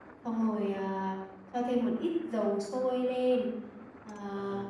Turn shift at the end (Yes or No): No